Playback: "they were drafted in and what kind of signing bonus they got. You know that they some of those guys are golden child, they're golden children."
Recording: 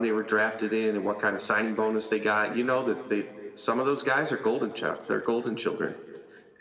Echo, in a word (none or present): present